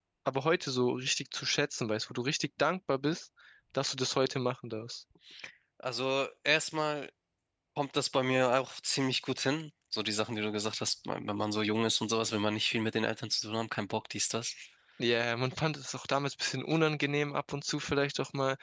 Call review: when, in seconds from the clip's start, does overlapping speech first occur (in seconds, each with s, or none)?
none